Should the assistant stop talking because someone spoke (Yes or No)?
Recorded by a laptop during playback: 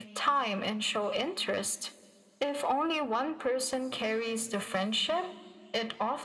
No